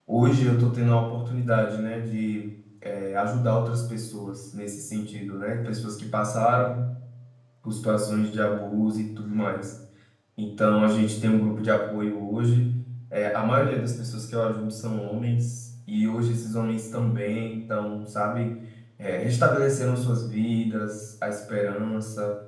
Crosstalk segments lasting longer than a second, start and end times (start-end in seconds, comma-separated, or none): none